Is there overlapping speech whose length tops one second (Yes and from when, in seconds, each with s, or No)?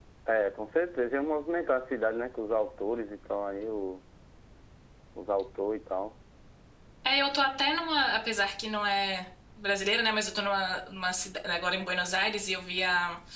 No